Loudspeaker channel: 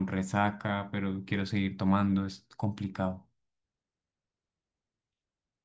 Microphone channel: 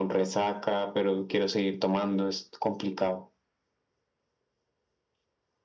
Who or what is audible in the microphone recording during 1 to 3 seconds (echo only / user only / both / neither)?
echo only